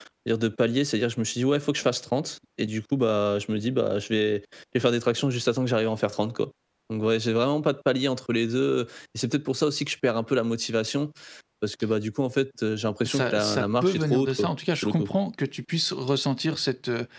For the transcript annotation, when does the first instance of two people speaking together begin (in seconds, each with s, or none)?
13.0 s